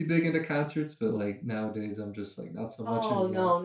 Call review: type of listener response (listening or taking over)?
taking over